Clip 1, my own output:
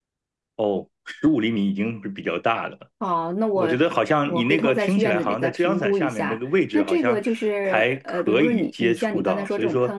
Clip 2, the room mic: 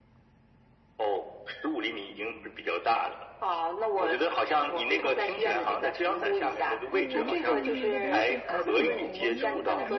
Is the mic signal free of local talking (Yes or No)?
No